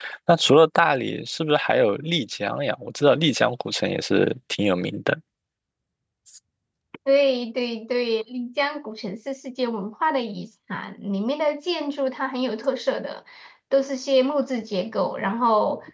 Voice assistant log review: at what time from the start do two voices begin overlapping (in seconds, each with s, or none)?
none